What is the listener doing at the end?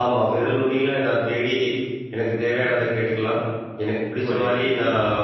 listening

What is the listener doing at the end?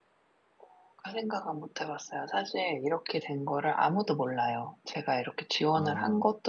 listening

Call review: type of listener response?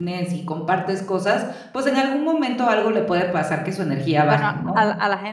taking over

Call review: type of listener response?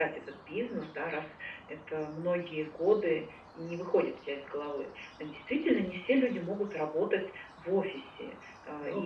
listening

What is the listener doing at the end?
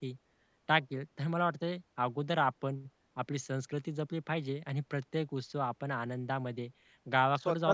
listening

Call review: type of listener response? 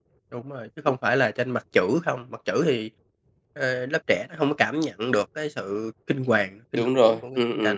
taking over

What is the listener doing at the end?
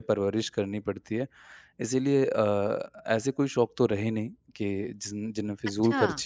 listening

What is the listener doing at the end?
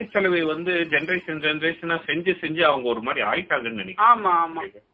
taking over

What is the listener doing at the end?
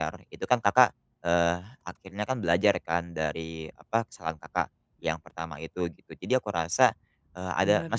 listening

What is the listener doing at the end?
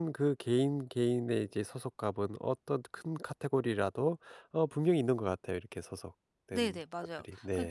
taking over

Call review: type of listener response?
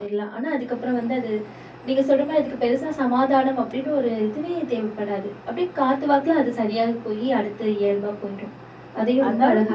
taking over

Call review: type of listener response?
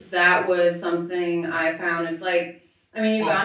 listening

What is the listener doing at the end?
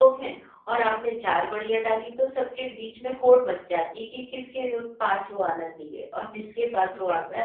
listening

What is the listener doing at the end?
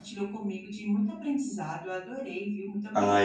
taking over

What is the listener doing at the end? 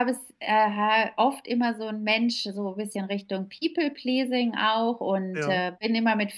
listening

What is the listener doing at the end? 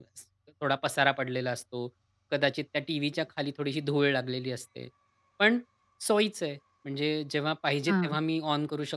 listening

